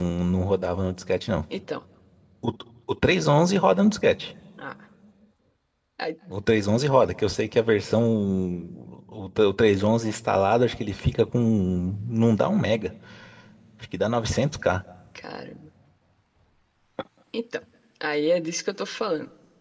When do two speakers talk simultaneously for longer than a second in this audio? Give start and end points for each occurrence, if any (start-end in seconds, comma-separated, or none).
none